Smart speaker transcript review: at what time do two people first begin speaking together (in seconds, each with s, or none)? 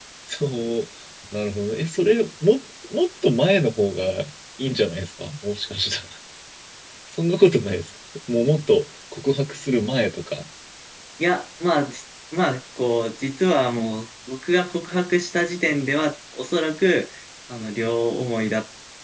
none